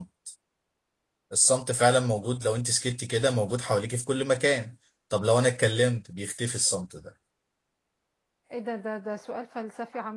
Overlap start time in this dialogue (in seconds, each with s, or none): none